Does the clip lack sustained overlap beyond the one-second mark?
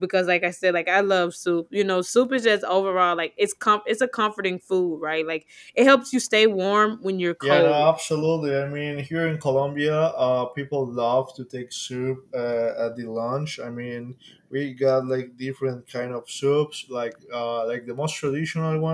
Yes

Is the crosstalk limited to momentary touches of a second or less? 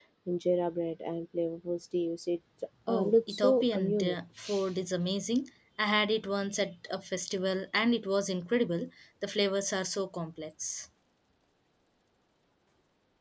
No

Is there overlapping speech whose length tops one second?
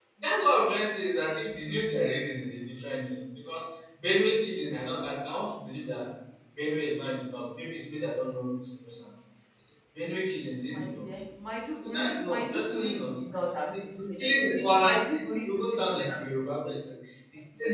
Yes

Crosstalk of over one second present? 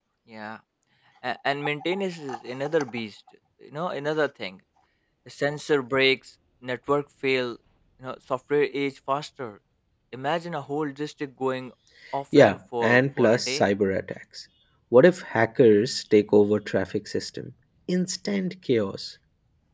Yes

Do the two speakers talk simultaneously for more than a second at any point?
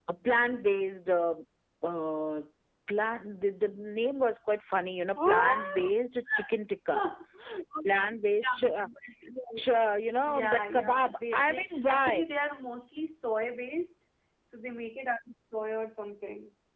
Yes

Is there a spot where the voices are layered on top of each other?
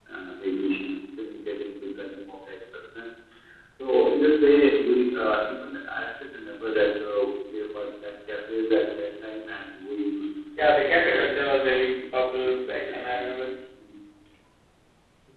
Yes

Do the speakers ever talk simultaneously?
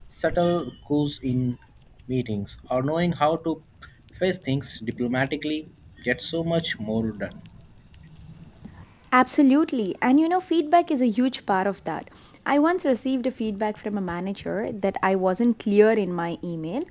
No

